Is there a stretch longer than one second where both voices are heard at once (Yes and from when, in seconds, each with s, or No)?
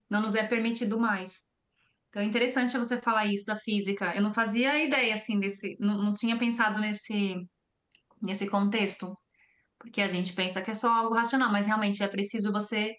No